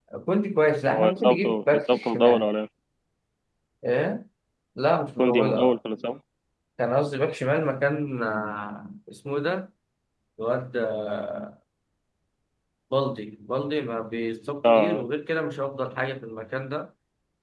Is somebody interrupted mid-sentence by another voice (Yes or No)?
Yes